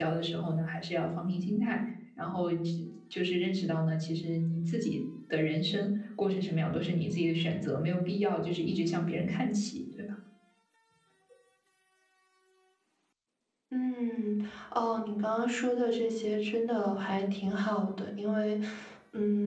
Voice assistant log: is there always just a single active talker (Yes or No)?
Yes